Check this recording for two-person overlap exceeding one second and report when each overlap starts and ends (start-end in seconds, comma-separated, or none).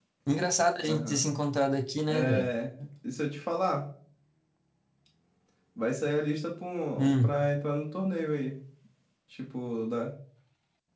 none